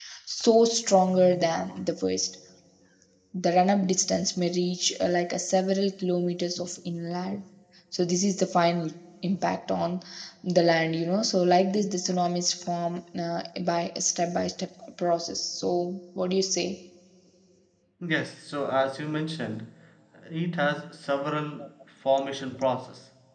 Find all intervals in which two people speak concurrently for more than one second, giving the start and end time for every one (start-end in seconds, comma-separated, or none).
none